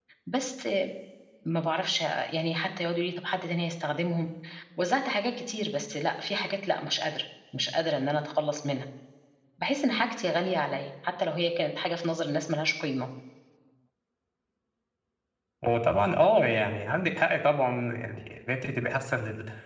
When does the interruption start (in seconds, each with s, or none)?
none